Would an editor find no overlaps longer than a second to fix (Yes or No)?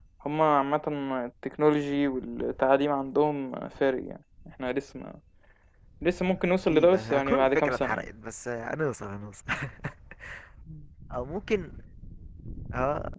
No